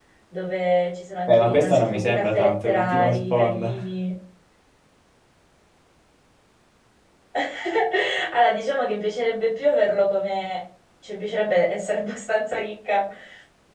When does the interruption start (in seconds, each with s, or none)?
1.3 s